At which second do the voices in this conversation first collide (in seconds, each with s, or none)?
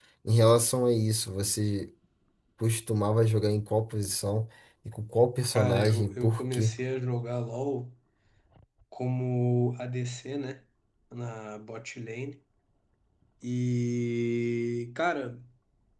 5.5 s